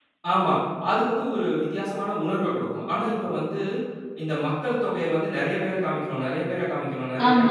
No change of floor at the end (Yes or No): No